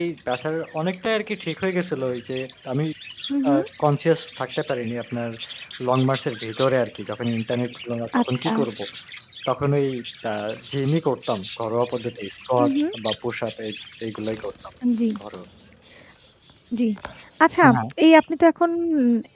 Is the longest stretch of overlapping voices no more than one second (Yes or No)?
Yes